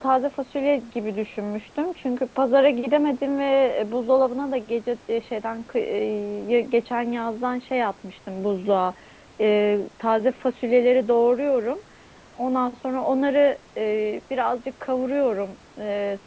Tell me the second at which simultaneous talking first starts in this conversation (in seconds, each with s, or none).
none